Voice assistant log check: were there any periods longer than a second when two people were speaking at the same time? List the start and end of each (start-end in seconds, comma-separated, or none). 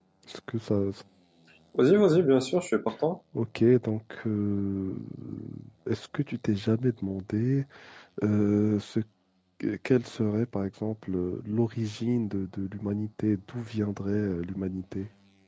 none